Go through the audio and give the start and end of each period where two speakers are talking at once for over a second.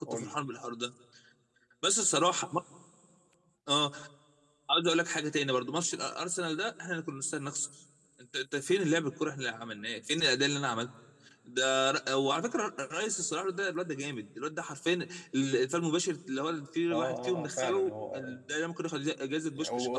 16.9-18.4

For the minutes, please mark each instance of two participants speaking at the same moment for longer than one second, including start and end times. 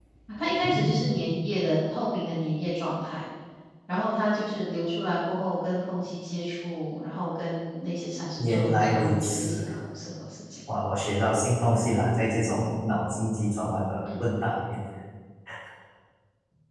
8.4-9.6

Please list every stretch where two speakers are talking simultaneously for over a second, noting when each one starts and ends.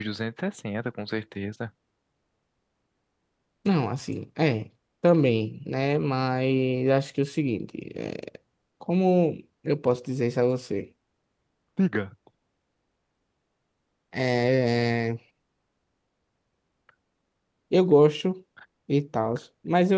none

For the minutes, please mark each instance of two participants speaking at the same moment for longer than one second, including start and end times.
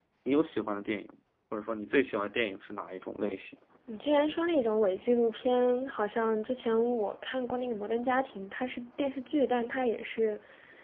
none

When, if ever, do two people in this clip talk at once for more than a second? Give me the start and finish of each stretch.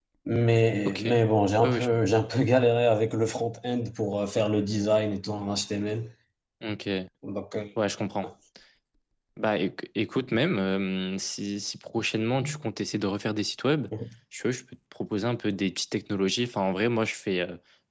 none

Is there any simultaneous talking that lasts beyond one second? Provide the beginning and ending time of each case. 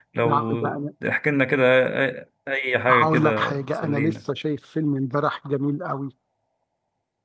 2.9-4.1

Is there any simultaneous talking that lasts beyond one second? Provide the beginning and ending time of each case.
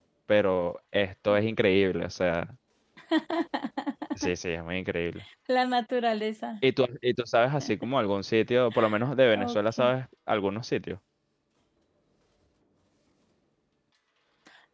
none

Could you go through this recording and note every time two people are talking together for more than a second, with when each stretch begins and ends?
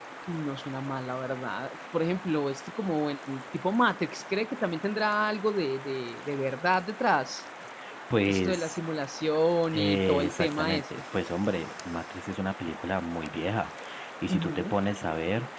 9.7-11.0

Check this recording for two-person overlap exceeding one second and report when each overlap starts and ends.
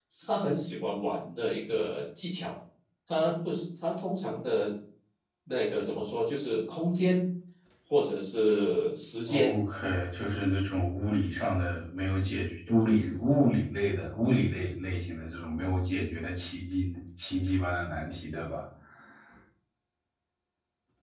none

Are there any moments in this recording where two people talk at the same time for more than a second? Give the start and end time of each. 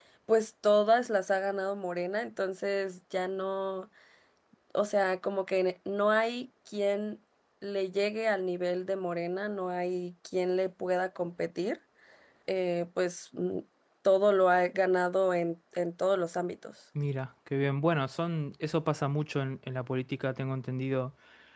none

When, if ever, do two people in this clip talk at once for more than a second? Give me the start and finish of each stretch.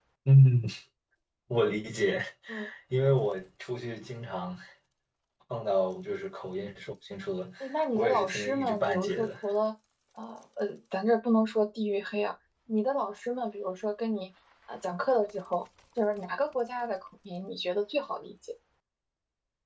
8.0-9.3

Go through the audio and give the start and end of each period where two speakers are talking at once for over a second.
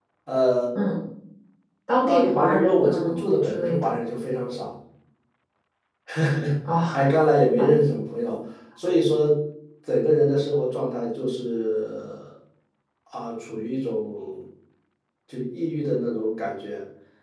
2.1-3.9

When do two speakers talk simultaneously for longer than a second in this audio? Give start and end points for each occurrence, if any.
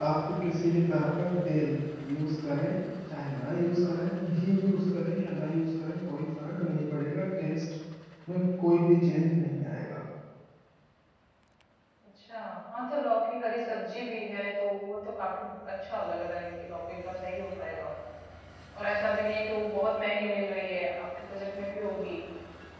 none

